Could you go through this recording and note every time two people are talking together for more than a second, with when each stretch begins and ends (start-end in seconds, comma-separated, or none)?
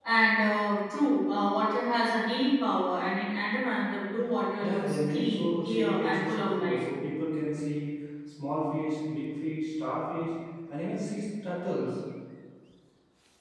4.6-6.8